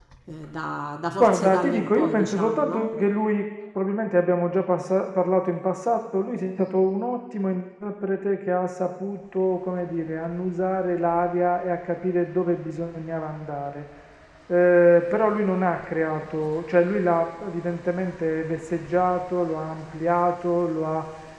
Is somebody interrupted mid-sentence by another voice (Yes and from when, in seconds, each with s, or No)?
Yes, from 1.2 s